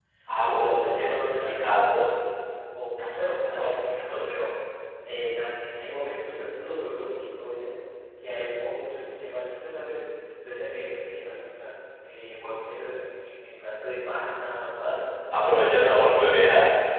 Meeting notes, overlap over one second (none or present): present